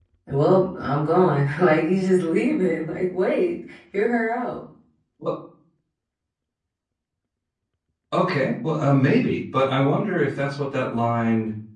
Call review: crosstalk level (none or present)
none